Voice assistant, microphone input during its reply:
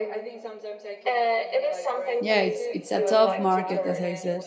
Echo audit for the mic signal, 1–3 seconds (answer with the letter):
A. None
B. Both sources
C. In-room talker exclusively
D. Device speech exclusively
B